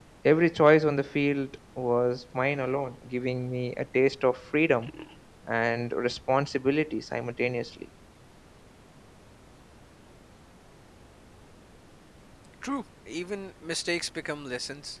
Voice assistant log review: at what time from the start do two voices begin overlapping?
none

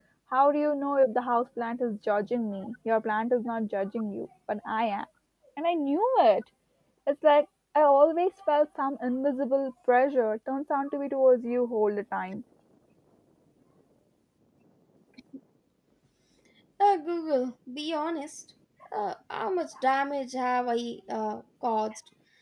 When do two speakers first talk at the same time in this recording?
none

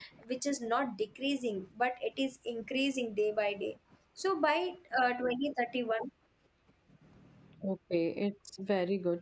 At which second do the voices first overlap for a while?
none

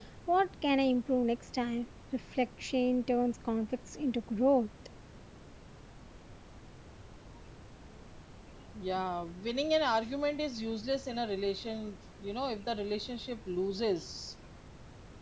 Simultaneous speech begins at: none

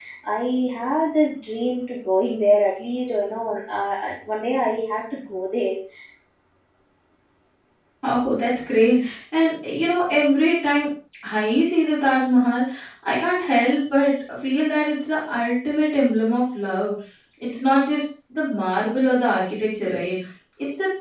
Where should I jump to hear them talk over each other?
none

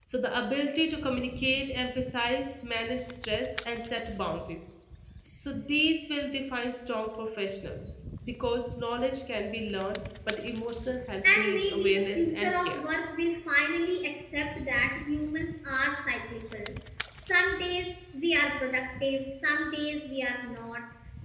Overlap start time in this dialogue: 11.2 s

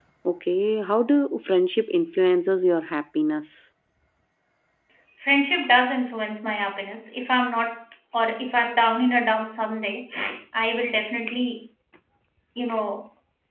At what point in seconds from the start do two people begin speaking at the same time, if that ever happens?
none

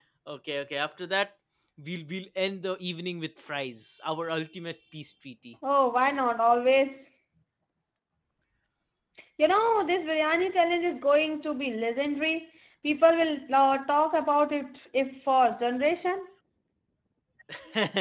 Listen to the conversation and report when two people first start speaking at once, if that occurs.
none

